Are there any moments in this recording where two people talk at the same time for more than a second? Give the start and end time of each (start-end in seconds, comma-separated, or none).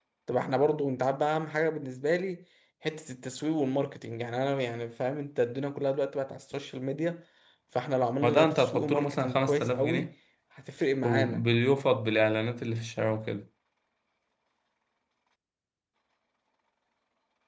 8.2-10.1